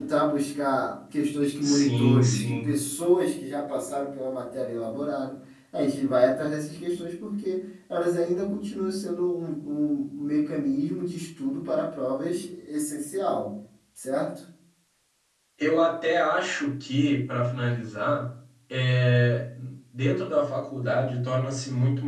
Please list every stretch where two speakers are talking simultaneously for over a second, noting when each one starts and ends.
1.6-2.8

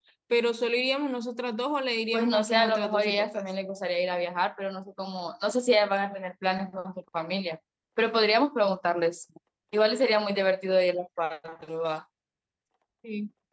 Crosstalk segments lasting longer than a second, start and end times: 2.1-3.4

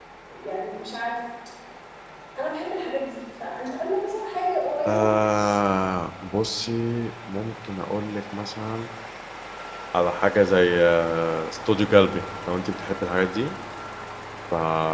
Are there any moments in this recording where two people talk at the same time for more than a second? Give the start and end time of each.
none

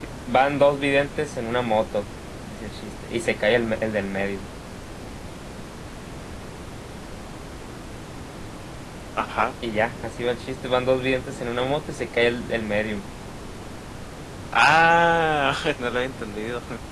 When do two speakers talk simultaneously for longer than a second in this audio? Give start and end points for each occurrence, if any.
none

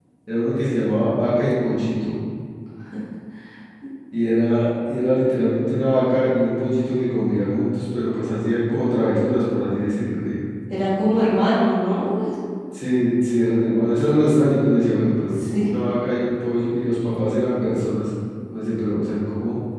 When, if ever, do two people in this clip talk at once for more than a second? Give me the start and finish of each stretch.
none

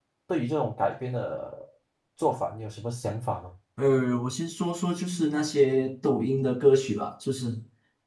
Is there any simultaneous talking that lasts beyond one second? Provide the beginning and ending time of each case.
none

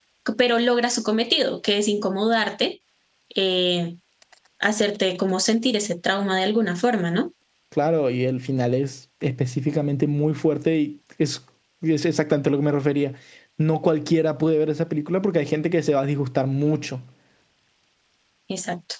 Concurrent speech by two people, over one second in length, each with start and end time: none

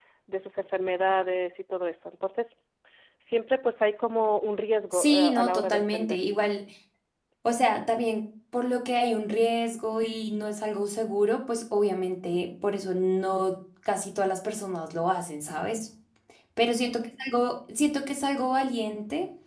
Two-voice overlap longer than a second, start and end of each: 4.9-6.2

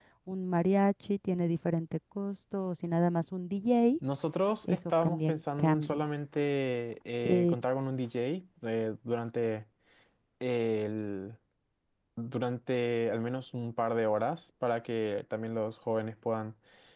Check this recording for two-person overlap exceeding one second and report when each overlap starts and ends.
4.7-6.0

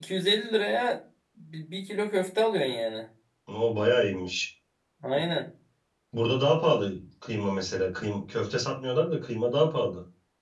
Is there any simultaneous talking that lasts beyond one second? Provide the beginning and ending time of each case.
none

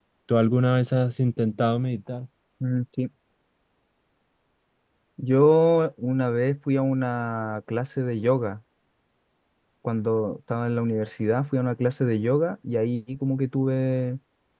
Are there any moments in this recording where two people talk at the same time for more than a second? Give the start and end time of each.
none

